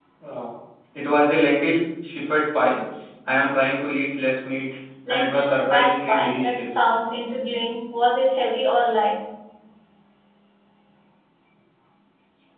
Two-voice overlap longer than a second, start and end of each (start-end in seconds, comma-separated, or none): 5.1-6.8